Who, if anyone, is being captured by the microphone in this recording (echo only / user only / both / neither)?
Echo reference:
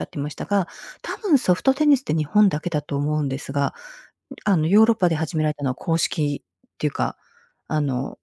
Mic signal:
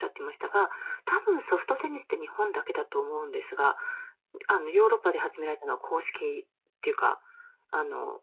echo only